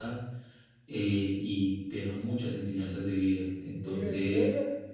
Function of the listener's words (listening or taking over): taking over